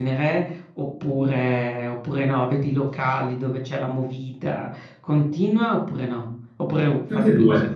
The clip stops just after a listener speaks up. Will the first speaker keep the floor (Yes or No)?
No